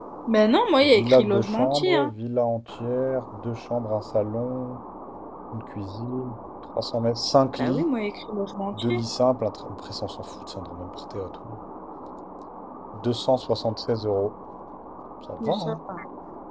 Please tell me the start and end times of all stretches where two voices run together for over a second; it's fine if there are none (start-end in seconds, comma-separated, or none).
0.8-2.1